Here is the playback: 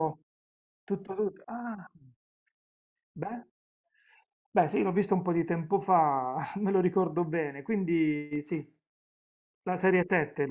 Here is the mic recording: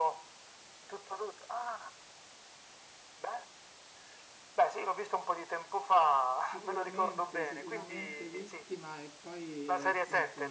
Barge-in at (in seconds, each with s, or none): 6.4 s